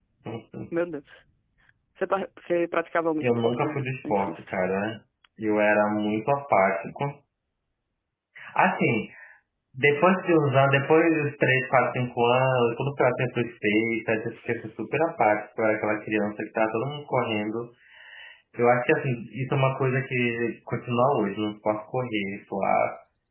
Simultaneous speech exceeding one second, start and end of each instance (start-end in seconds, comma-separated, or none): 3.2-4.5